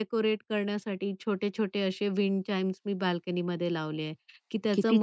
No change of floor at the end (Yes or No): Yes